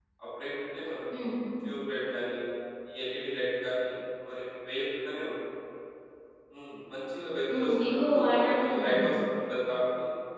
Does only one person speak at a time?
No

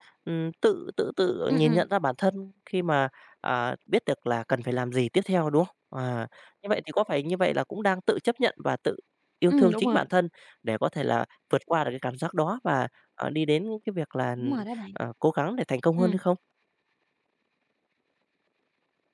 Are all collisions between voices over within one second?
Yes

